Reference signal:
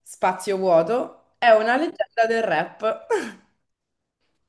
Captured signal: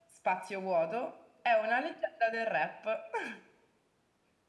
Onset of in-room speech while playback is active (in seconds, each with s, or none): none